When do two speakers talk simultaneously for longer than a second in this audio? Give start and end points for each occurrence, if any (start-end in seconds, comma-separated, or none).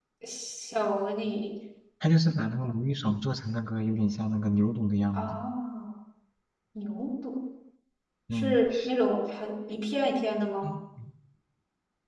none